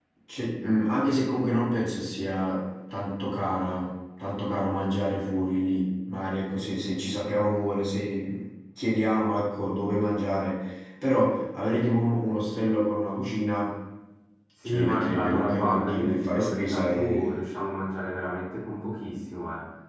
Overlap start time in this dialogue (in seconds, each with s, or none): 14.6 s